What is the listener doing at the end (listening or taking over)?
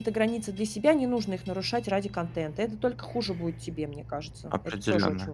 taking over